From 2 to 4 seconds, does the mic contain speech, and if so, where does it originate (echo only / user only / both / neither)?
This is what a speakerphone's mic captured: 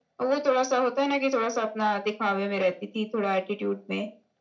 echo only